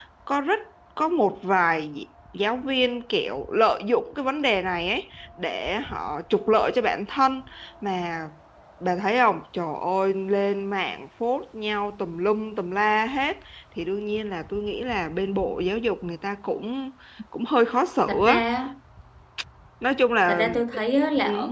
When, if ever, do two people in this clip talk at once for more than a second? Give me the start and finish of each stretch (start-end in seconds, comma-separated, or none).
none